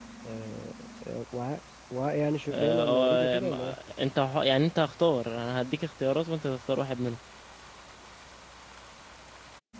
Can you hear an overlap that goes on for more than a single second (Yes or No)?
Yes